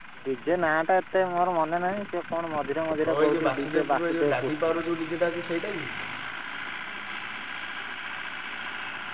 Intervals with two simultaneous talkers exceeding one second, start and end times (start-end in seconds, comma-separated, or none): 3.1-4.7